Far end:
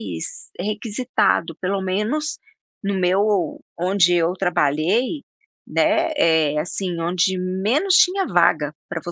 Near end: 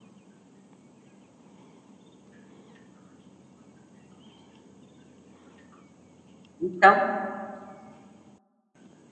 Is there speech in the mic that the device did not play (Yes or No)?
Yes